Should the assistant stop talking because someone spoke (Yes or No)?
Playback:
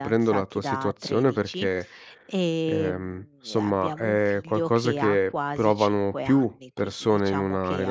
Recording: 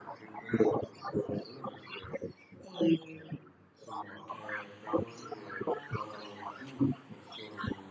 No